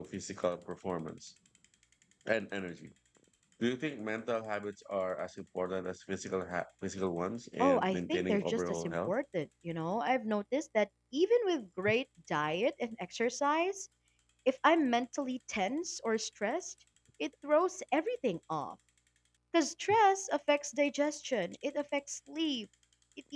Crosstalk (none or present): present